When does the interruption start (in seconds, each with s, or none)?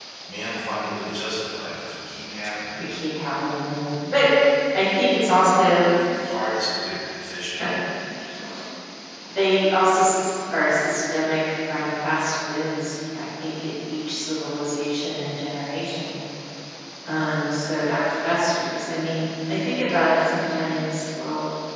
none